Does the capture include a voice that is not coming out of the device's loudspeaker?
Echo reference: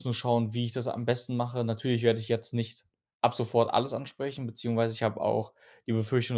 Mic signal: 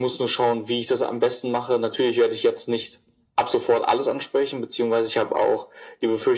No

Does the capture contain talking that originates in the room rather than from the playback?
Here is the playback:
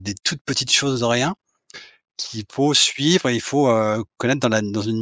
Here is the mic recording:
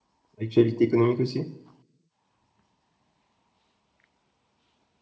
Yes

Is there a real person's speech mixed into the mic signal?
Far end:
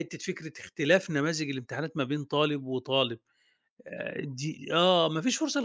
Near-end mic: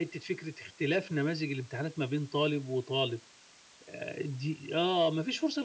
No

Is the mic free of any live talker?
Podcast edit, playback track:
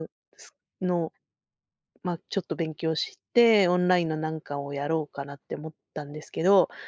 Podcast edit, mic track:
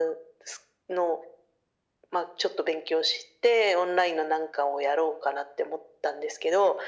Yes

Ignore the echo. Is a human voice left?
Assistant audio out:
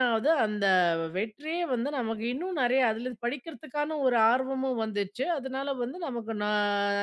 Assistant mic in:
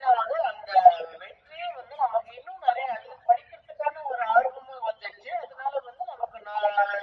No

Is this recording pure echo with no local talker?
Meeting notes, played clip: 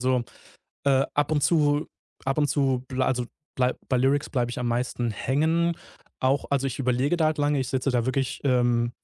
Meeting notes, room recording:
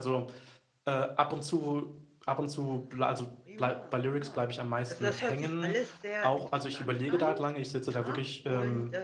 No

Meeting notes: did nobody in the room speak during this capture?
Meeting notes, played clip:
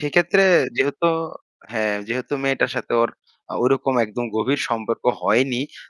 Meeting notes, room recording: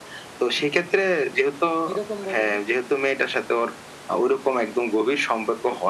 No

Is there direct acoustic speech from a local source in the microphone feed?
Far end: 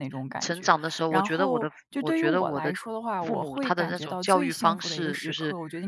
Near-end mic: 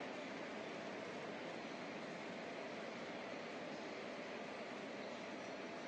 No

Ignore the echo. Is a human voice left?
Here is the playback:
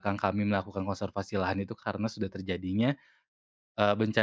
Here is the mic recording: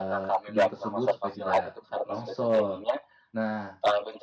Yes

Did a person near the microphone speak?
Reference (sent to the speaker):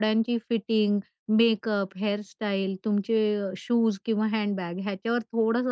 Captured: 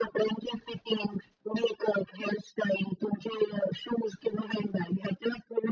No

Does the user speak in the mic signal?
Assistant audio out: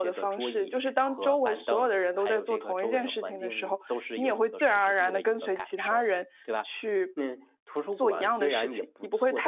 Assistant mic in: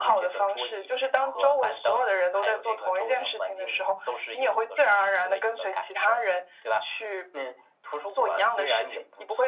No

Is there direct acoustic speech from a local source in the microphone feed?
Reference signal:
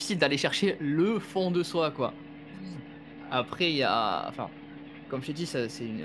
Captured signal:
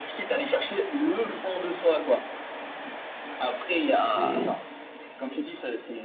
Yes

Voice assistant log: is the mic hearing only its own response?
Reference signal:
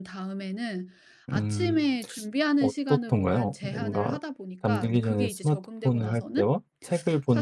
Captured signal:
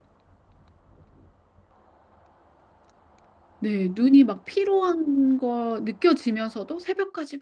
No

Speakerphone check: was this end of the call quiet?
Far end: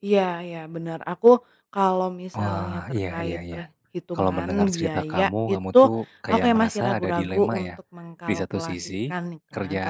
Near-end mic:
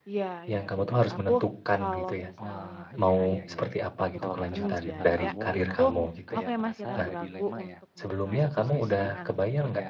No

